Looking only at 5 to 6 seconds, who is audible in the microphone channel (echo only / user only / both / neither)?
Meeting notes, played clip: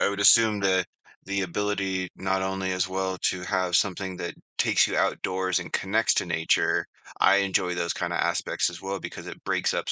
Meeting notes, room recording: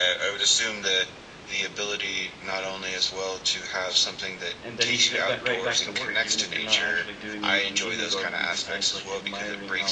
both